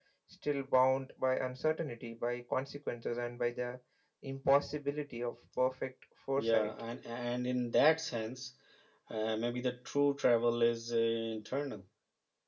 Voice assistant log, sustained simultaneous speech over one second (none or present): none